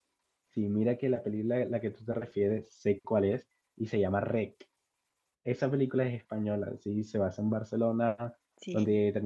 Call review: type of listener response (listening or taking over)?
listening